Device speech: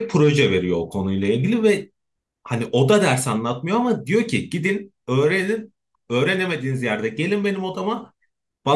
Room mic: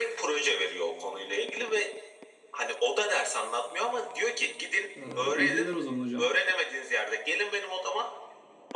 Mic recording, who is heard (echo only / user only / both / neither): both